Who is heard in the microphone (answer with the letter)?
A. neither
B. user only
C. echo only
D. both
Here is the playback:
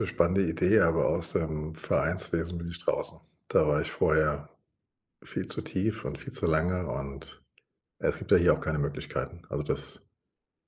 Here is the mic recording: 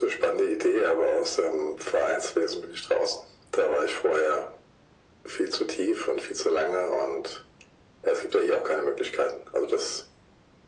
C